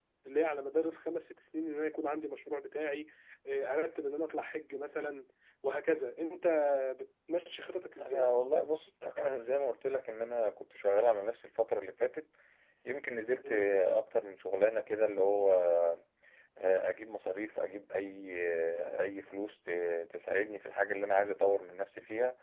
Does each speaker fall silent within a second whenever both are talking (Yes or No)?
Yes